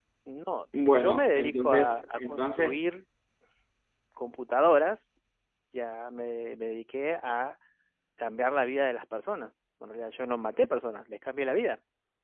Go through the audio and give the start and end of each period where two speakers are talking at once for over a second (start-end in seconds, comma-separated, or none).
0.9-2.8